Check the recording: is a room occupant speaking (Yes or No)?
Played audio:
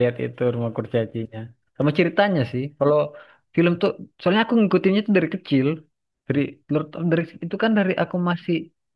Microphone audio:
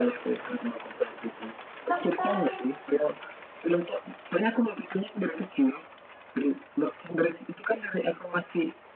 Yes